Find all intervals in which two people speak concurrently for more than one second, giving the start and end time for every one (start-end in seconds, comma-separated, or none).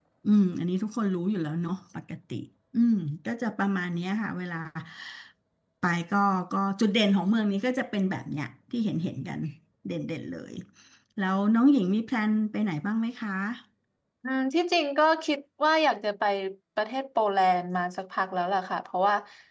none